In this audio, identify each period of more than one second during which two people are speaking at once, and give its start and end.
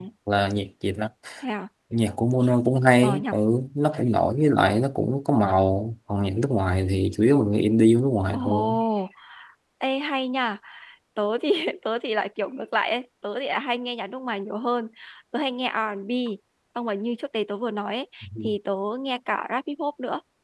none

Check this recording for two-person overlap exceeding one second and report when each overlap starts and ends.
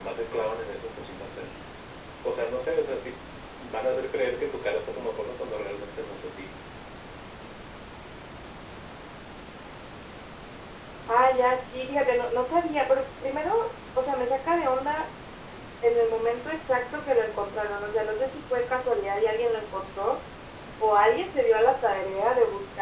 none

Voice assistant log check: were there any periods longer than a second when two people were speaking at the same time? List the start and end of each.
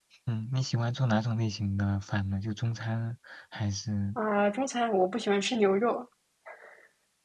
none

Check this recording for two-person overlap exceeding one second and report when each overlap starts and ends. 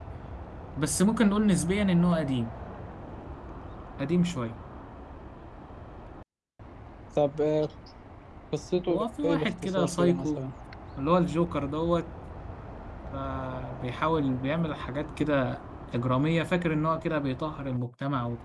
8.9-10.4

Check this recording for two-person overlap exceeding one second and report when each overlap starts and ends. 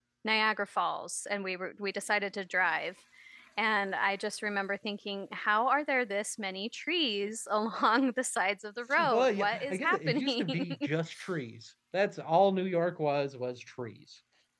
9.1-10.6

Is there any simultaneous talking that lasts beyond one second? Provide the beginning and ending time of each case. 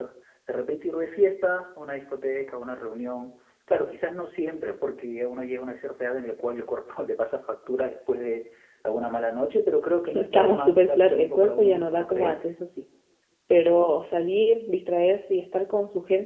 10.1-12.4

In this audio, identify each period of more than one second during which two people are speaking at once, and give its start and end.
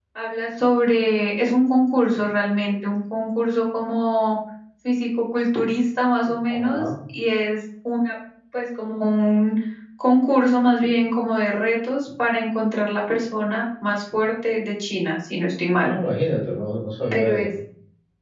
none

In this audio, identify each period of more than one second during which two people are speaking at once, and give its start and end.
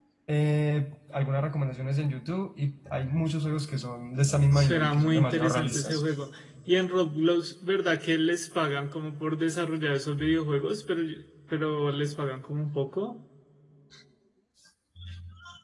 4.5-6.0

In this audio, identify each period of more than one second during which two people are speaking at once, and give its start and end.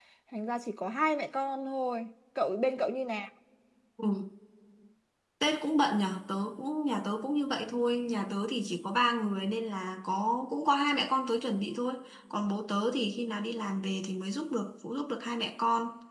none

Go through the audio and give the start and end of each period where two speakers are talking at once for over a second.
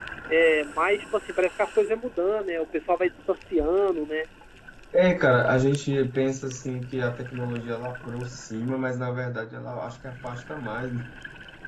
none

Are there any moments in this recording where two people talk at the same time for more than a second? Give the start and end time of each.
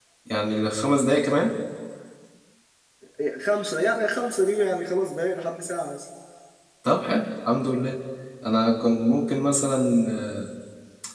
none

